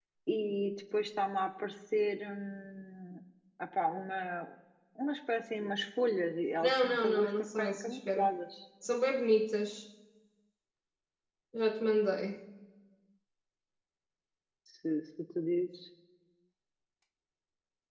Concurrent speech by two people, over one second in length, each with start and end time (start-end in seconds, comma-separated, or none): 6.6-8.3